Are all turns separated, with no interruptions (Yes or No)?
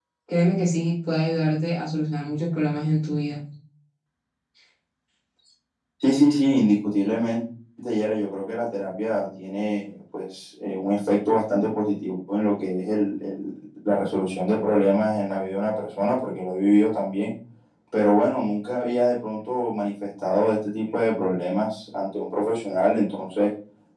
Yes